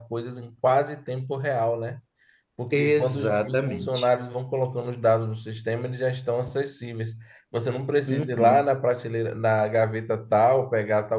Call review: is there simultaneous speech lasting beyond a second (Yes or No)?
Yes